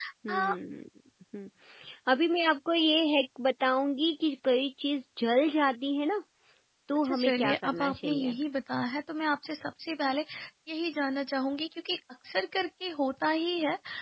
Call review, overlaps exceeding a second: present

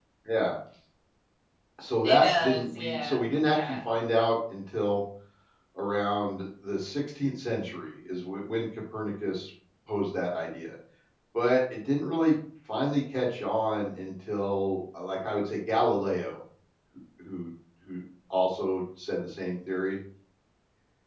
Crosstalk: present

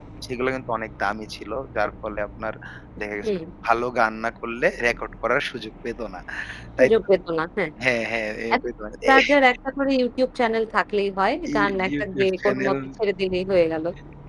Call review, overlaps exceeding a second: present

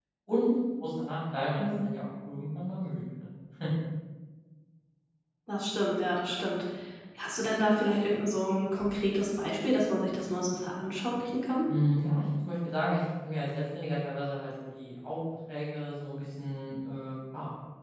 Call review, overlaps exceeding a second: none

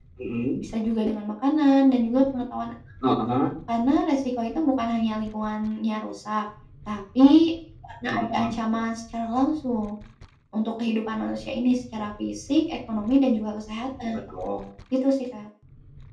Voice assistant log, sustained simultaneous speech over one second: none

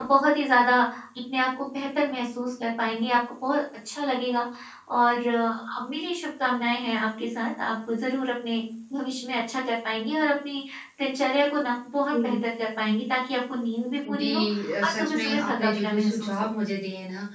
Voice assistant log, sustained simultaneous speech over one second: present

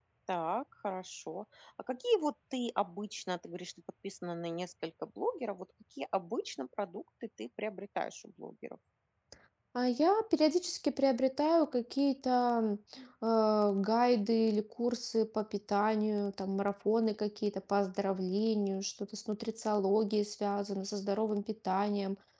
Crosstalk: none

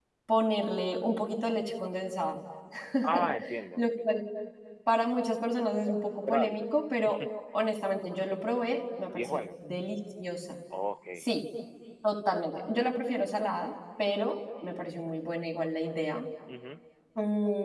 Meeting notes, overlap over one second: none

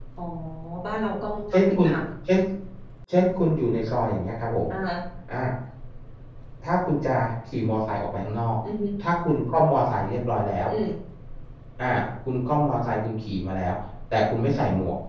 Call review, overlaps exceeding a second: none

